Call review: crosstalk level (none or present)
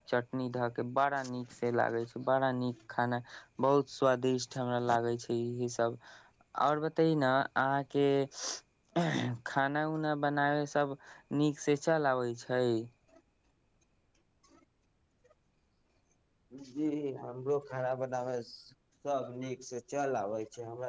none